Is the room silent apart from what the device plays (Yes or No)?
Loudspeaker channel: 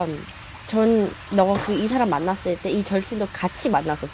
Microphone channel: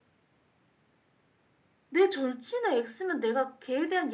No